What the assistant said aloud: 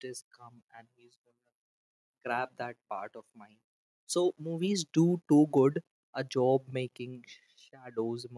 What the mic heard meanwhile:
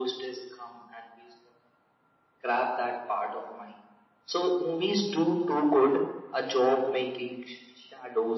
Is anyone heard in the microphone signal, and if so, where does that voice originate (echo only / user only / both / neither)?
echo only